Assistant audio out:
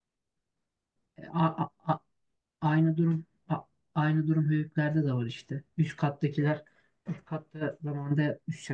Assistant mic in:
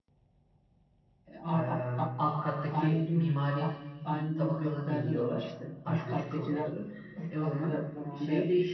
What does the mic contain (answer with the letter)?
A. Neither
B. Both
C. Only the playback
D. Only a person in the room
B